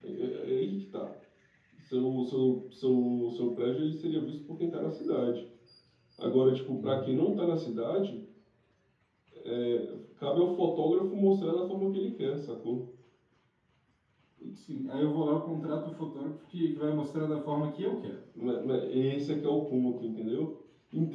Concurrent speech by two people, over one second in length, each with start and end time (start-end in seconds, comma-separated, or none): none